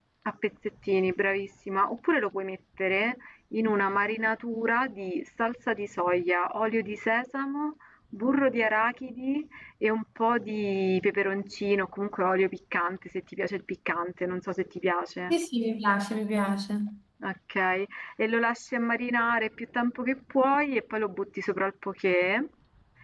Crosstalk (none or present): none